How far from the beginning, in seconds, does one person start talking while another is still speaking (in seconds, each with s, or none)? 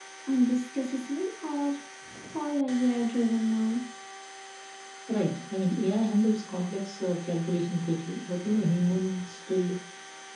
none